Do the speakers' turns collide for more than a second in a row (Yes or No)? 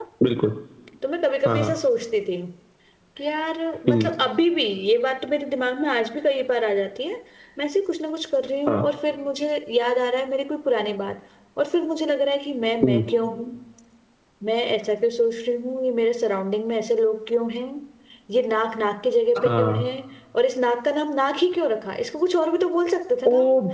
No